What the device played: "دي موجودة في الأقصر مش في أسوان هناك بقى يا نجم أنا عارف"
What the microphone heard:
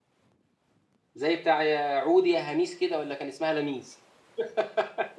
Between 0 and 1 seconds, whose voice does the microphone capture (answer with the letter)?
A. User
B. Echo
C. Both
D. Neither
D